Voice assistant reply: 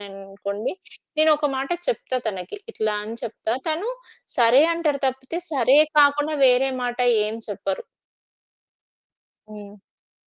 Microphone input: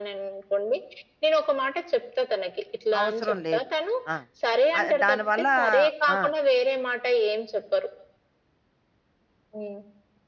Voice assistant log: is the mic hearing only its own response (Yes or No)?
No